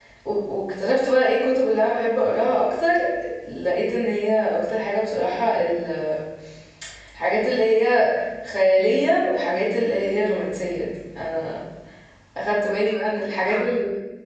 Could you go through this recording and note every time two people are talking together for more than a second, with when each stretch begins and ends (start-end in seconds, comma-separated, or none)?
none